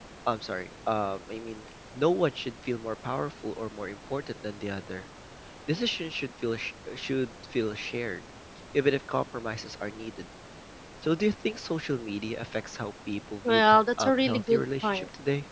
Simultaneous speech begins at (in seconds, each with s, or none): 13.4 s